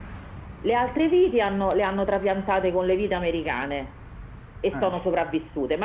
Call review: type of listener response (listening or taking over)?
listening